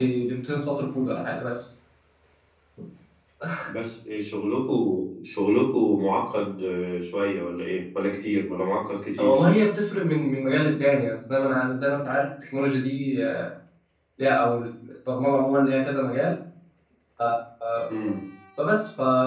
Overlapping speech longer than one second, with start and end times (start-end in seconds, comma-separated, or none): none